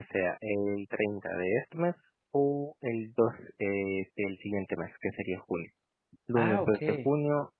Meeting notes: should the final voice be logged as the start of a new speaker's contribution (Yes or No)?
No